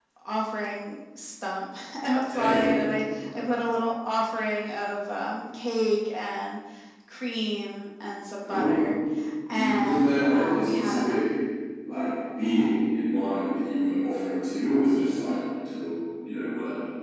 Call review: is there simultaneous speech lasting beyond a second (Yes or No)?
Yes